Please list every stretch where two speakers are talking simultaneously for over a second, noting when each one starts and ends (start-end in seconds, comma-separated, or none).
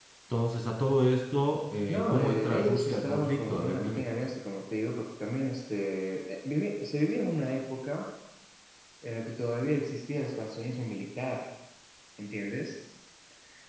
1.9-4.0